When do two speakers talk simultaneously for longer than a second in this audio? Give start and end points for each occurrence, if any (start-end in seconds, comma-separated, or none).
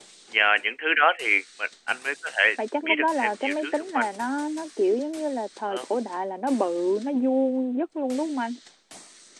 2.8-4.0